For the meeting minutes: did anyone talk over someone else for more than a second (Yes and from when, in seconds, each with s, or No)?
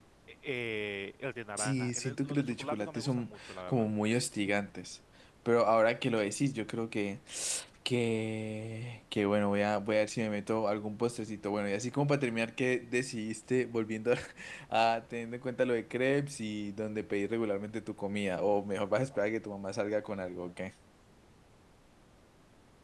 Yes, from 1.6 s